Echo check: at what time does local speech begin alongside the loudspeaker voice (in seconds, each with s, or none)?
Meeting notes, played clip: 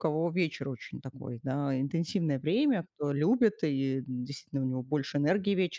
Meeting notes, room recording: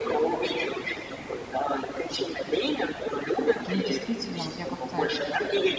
3.6 s